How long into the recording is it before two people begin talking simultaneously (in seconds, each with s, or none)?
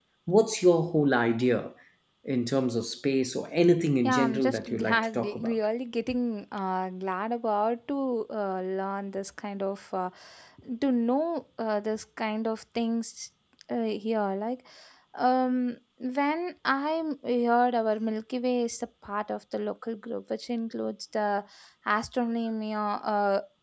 4.0 s